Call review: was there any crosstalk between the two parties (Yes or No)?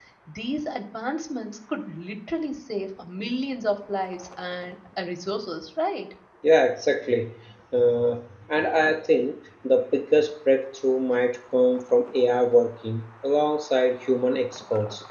No